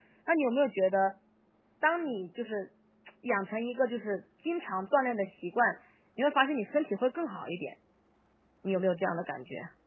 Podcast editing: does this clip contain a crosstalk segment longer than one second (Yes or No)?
No